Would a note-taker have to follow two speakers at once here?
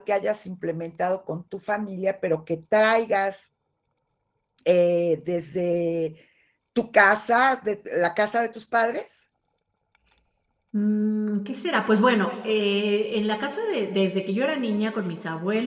No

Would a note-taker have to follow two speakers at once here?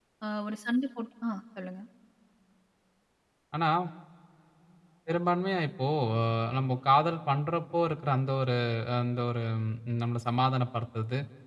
No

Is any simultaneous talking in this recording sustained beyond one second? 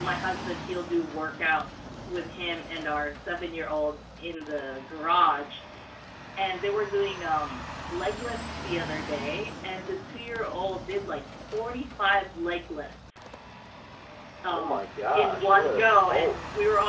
Yes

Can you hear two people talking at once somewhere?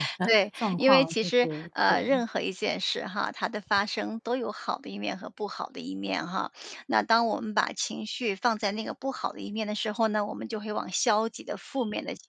Yes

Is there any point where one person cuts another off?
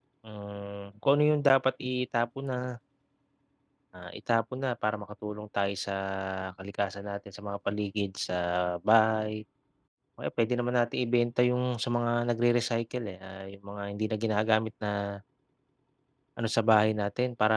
No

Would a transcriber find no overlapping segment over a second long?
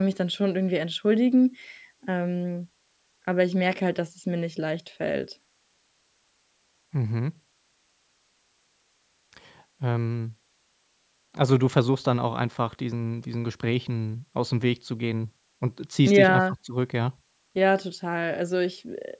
Yes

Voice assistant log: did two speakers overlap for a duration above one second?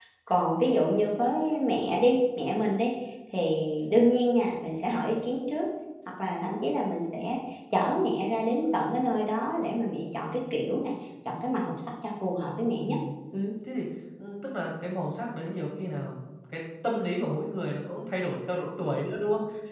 No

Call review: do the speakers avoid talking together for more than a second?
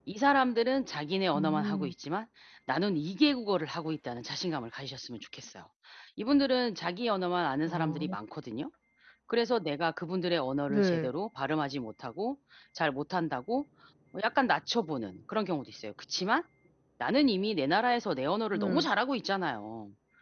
Yes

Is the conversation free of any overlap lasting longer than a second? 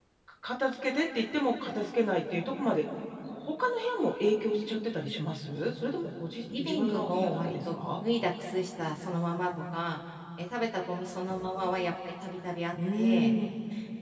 No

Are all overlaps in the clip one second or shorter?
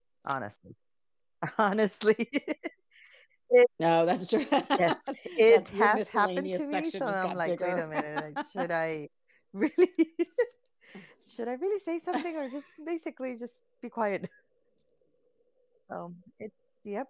No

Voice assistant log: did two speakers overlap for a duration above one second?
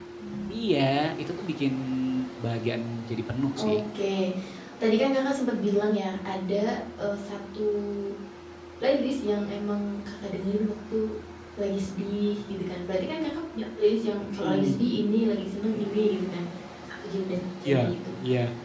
No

